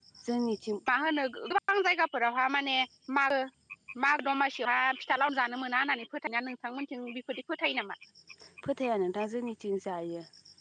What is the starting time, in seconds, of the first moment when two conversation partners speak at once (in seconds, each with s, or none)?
none